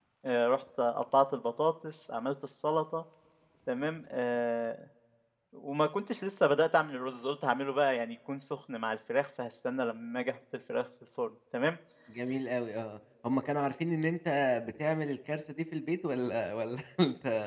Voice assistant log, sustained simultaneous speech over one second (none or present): none